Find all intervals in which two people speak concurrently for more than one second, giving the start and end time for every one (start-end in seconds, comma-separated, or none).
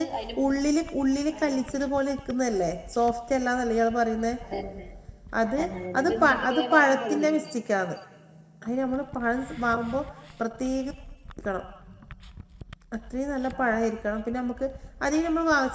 6.0-7.5